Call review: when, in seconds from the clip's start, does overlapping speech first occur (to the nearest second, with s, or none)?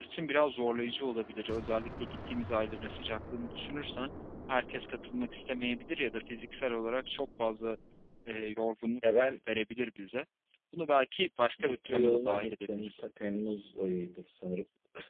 12 s